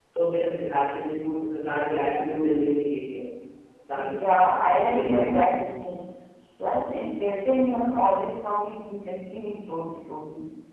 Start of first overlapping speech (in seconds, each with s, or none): 3.9 s